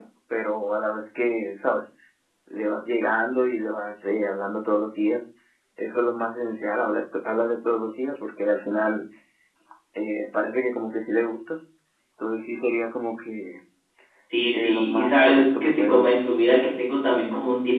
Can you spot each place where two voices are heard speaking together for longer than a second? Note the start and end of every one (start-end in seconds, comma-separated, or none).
14.5-16.2